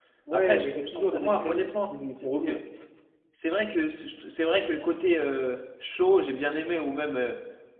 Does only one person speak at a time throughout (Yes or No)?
No